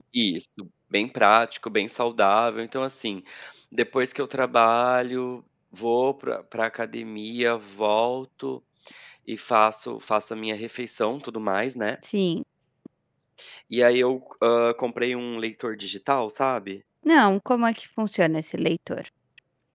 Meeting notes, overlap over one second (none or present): none